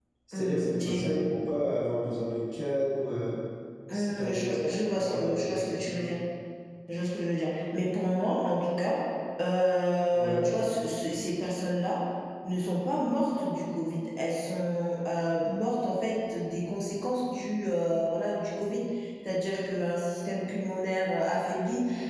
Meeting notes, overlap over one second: present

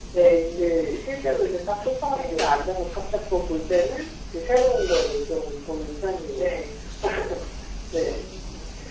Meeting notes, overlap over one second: none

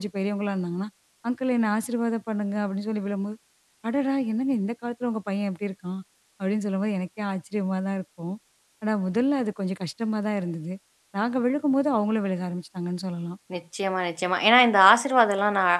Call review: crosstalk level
none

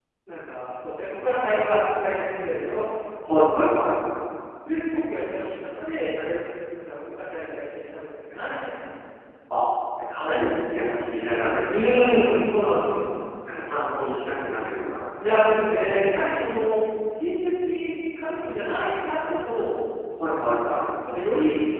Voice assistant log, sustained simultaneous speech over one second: none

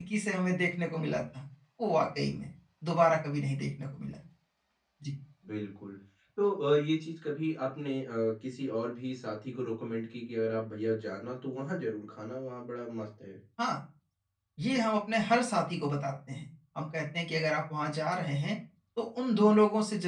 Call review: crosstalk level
none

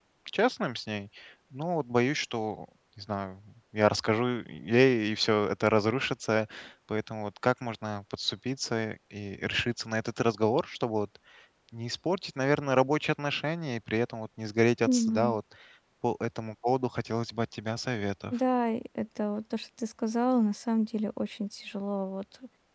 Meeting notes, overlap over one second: none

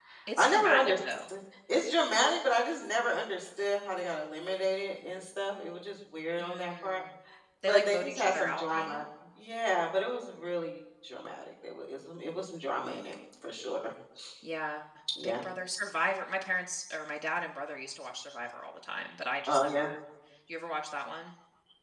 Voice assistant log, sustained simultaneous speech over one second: present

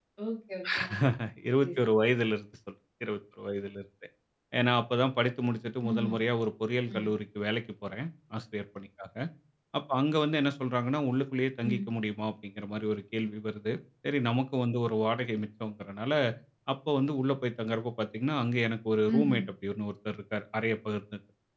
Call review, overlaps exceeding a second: none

